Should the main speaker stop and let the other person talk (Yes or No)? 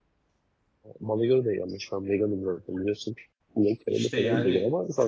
Yes